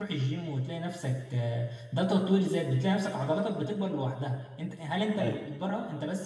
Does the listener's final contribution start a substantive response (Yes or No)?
No